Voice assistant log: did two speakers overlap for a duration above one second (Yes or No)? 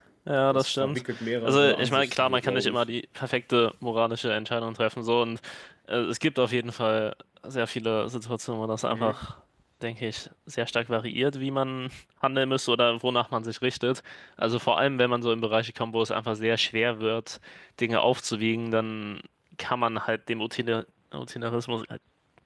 Yes